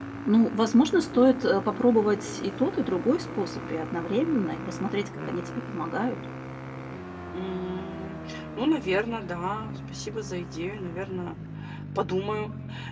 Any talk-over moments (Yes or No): No